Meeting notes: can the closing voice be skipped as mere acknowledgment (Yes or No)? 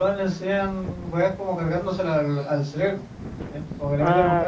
Yes